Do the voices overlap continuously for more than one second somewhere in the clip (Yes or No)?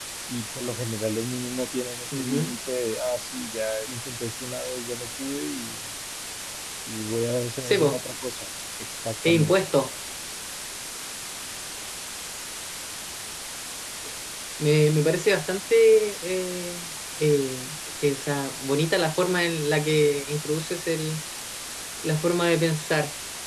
No